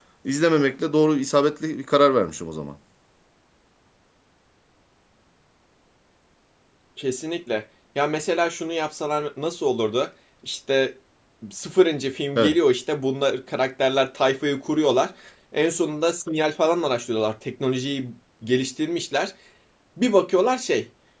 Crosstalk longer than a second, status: none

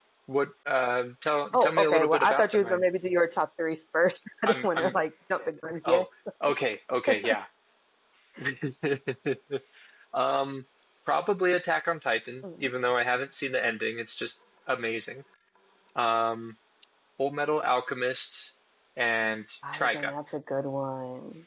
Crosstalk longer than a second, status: present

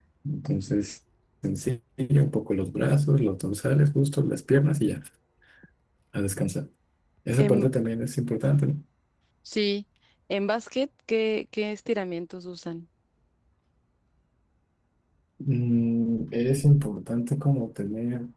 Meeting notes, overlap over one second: none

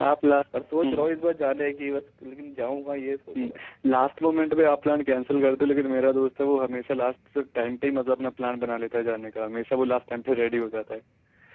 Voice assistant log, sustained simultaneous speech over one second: none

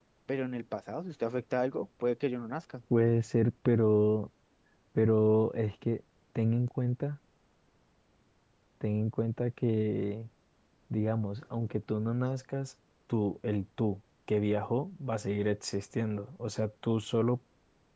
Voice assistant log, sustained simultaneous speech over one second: none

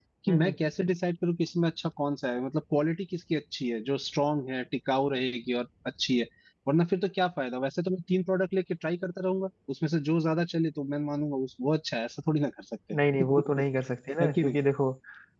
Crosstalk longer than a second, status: none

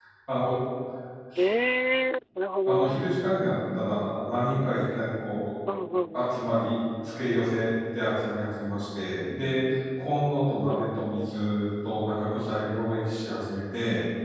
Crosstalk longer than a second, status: none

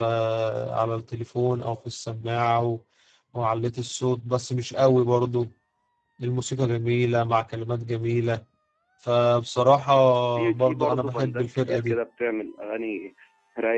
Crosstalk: present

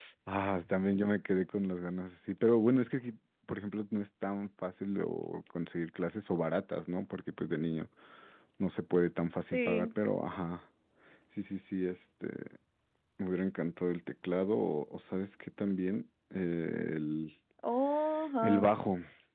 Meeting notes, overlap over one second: none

